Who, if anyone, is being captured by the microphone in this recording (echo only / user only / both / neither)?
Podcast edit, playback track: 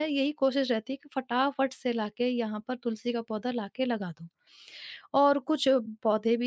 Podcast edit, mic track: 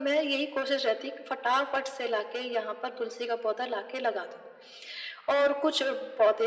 echo only